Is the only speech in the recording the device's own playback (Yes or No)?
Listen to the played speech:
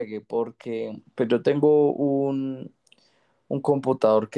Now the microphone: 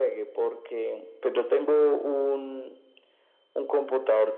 Yes